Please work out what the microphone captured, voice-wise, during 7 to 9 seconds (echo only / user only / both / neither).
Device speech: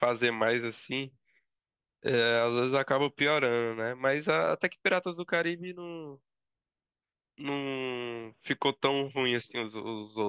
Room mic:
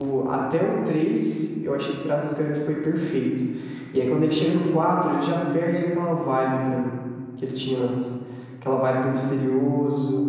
user only